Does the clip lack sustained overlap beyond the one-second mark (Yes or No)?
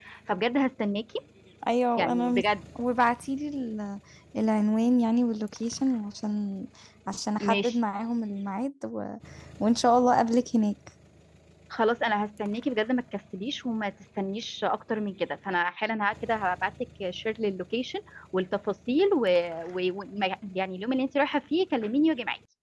Yes